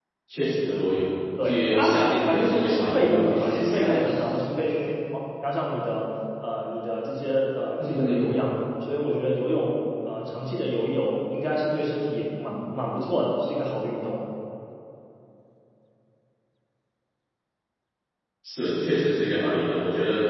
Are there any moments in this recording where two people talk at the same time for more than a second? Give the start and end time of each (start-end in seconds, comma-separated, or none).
1.4-4.0